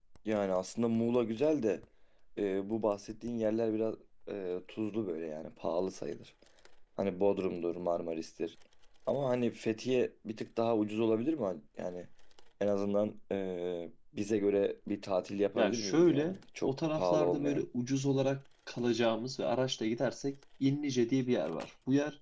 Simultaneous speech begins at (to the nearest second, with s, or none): 16 s